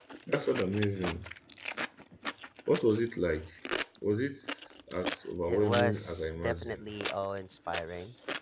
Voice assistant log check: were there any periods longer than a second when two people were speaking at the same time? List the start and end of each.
5.5-6.9

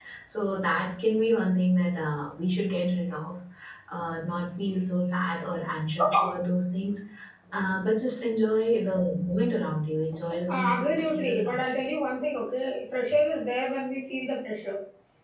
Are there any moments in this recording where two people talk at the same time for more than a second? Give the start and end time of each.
10.5-11.8

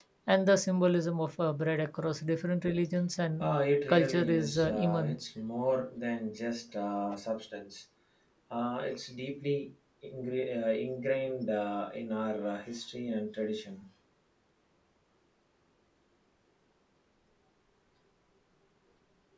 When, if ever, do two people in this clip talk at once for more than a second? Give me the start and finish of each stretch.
3.9-5.3

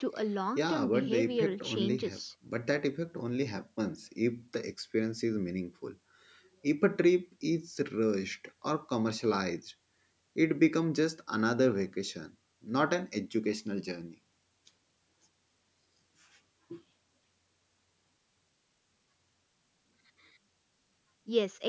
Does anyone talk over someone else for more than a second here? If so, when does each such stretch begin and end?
0.6-2.2

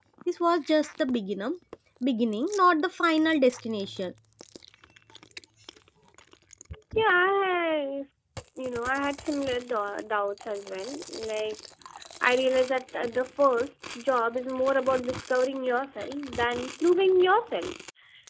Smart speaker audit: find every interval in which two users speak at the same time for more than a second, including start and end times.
none

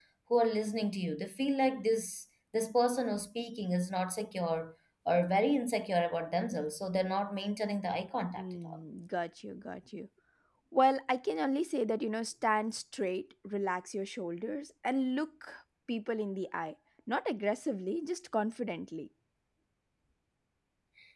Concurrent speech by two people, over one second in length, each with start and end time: none

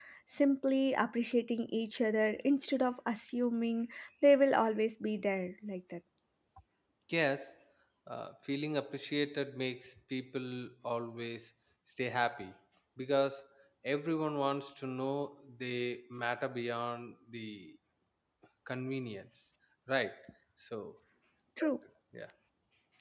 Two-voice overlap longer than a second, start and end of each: none

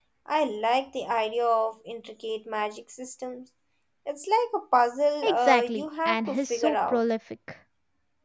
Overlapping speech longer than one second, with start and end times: 5.2-7.0

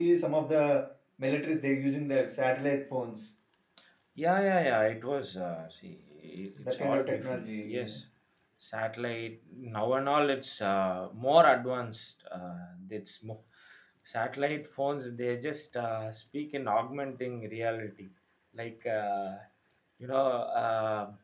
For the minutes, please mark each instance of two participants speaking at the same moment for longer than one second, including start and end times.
6.7-7.9

